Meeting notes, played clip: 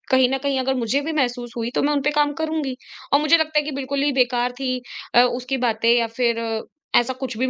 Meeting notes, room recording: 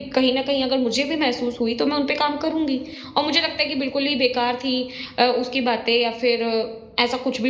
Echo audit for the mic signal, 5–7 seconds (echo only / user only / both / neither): echo only